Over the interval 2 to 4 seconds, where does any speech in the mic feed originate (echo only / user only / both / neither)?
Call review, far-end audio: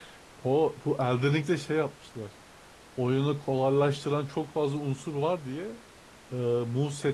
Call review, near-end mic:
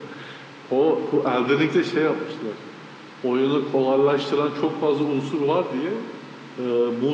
echo only